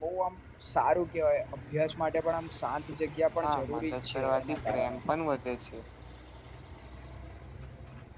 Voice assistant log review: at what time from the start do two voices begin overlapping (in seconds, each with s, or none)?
3.4 s